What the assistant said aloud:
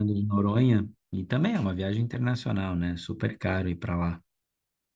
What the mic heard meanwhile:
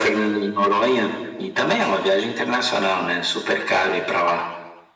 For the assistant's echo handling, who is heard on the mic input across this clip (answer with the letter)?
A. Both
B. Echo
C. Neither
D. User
B